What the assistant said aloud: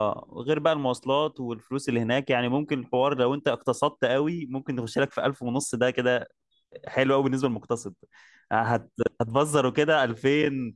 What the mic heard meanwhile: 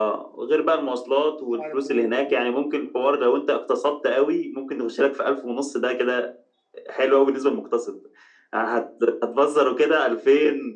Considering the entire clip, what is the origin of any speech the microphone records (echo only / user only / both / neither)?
both